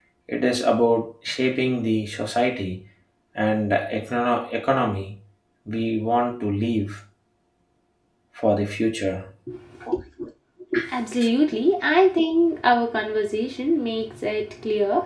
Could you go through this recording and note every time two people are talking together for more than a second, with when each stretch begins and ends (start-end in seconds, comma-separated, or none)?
none